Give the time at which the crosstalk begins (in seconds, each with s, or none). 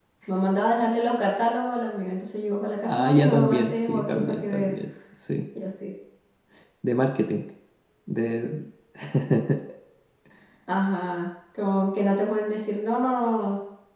2.8 s